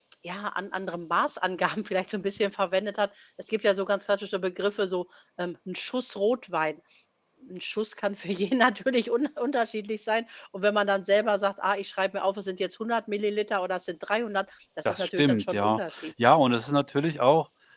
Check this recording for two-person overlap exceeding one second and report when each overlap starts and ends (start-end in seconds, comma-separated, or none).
14.8-16.1